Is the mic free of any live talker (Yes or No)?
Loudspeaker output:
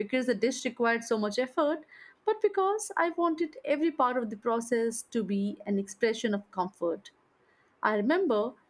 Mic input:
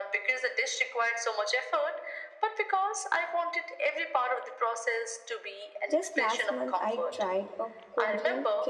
No